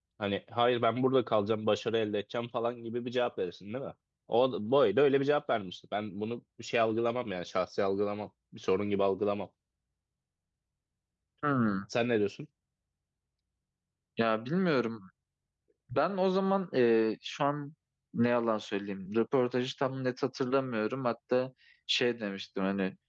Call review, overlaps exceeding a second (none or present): none